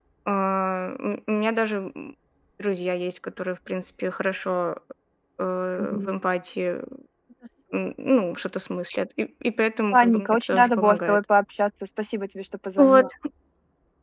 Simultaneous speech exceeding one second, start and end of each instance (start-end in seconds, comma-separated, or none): 9.9-11.2